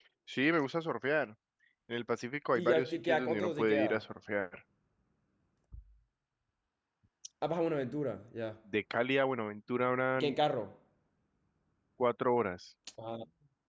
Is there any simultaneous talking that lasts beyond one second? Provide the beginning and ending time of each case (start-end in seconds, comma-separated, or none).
2.6-3.9